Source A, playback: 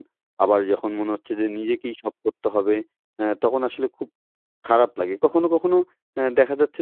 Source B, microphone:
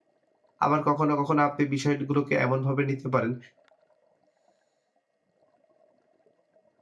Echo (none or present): none